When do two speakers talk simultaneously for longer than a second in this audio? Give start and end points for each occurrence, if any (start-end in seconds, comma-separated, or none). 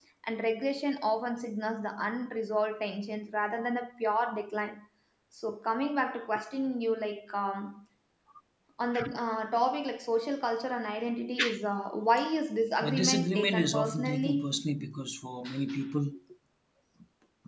12.8-14.5